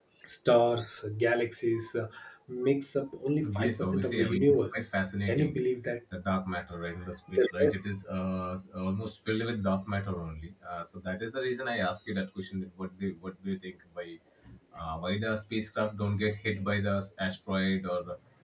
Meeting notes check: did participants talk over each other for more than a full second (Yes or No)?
Yes